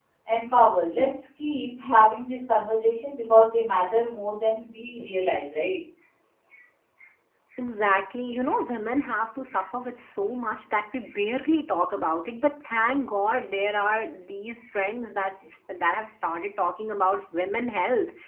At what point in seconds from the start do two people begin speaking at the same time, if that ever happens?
none

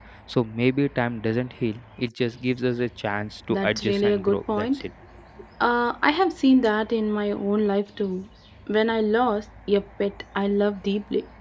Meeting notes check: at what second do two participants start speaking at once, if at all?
4 s

